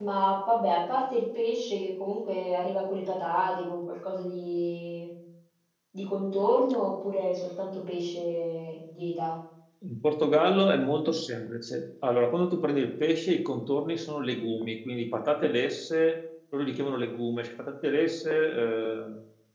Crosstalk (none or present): none